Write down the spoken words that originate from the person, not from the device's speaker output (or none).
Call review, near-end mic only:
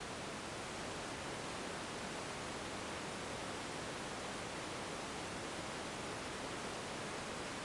none